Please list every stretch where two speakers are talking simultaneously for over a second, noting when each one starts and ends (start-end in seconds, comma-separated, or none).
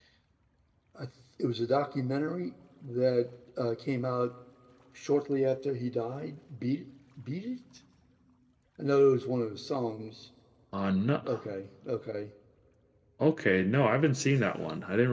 none